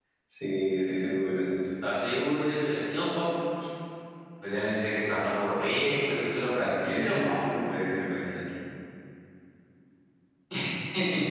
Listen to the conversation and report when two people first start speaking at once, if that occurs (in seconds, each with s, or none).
5.8 s